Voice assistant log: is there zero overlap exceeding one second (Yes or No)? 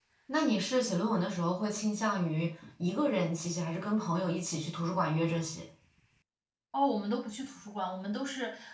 Yes